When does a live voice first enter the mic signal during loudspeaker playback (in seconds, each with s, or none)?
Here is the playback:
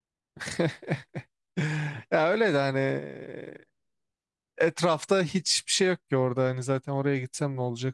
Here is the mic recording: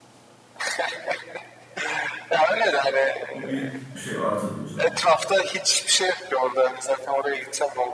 3.3 s